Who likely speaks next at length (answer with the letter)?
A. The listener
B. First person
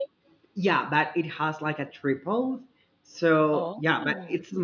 B